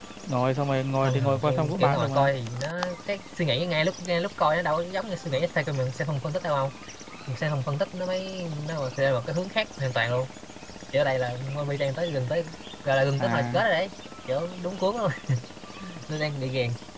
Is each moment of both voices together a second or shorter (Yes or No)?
No